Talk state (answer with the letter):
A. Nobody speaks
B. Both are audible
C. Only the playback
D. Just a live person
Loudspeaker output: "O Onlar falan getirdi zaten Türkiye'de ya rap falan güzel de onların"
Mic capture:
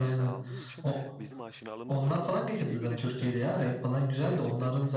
B